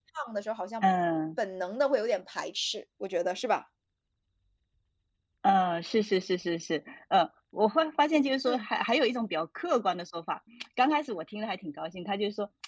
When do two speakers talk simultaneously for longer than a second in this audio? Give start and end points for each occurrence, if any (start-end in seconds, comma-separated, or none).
none